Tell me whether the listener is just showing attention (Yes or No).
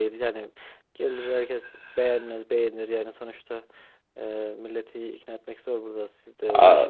No